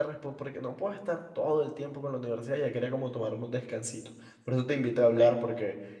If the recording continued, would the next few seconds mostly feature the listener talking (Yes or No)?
No